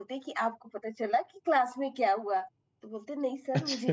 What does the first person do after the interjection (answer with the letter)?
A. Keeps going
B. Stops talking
A